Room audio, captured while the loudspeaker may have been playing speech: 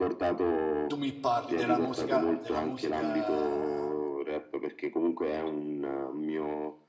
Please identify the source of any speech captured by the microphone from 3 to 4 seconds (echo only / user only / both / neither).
both